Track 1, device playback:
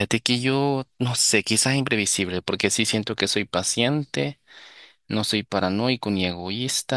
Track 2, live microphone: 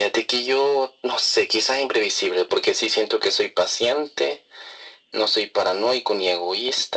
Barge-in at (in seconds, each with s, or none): none